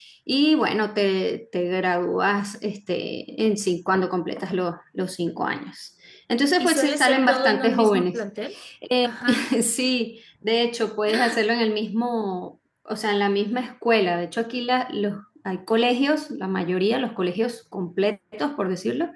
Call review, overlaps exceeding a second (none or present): present